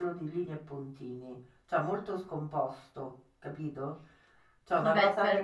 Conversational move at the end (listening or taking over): taking over